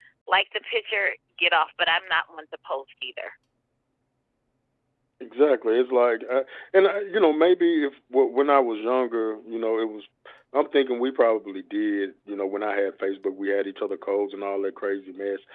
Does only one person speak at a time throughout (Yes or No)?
Yes